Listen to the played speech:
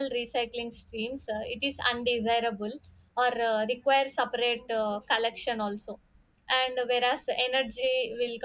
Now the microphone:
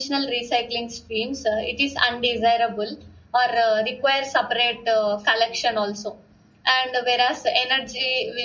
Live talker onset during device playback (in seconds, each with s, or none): none